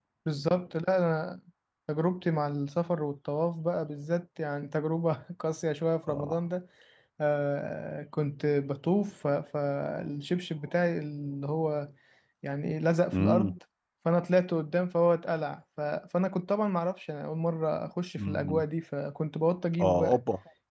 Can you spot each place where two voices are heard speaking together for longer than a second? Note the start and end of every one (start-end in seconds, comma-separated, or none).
none